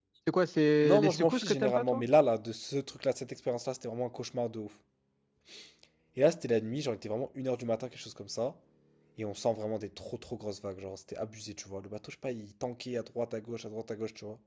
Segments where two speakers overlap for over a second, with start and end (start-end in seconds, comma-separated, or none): 0.8-2.0